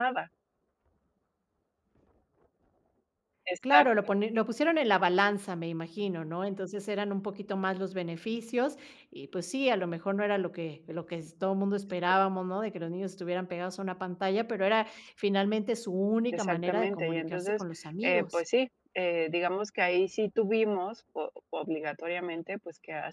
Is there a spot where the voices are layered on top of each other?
Yes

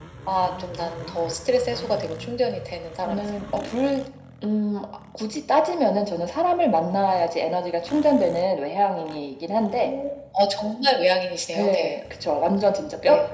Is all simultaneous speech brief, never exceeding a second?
Yes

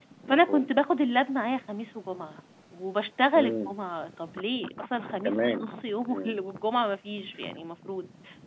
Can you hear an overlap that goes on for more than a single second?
No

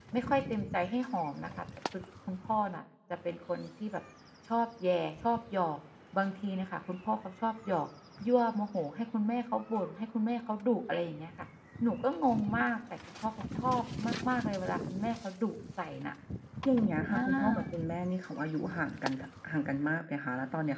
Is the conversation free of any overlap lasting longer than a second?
Yes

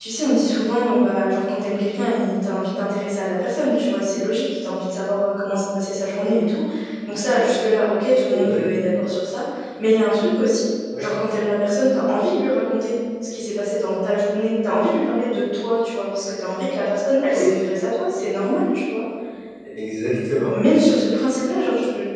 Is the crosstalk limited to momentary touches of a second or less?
Yes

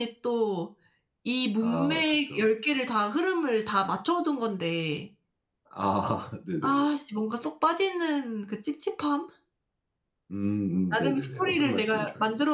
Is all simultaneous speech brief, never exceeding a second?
No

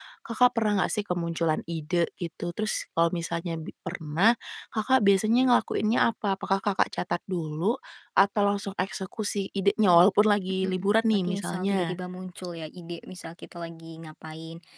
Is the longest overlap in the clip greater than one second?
Yes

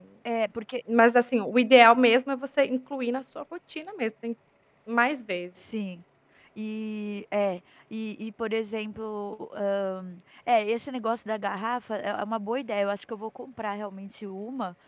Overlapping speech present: No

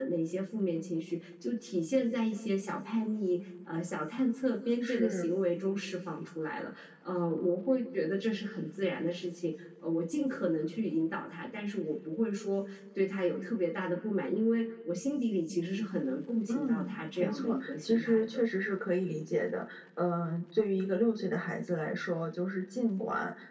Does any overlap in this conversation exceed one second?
Yes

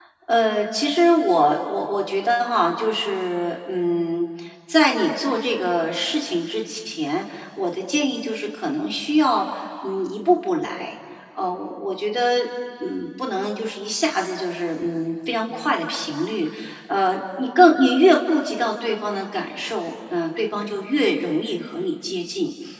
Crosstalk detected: No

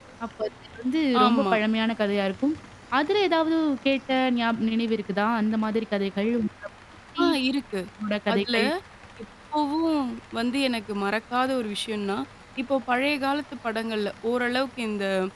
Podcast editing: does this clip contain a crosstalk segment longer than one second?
No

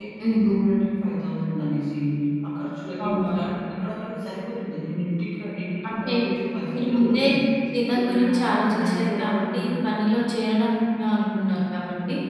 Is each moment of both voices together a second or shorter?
No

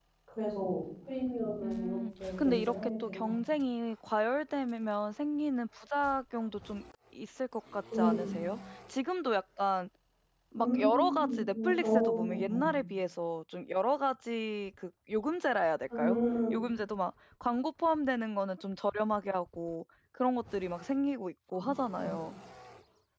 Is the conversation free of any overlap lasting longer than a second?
No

